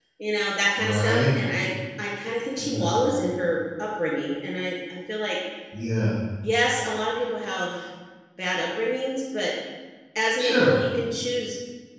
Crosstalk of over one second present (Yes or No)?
No